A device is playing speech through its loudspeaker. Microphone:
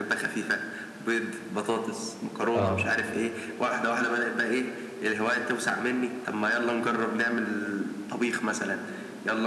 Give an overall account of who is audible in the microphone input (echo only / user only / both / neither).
both